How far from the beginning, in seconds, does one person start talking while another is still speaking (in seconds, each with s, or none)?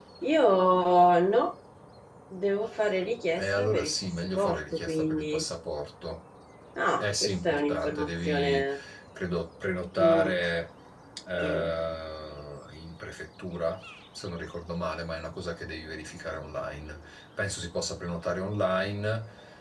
3.4 s